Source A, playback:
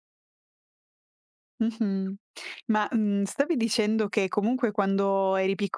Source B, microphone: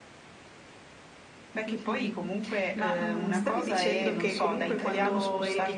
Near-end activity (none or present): present